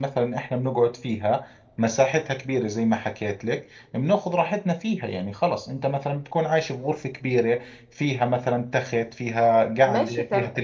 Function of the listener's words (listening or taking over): taking over